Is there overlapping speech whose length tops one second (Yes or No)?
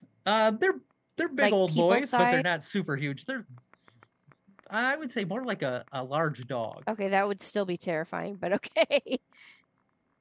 Yes